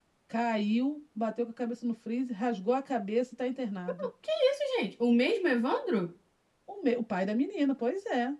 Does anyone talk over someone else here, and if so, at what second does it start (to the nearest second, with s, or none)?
none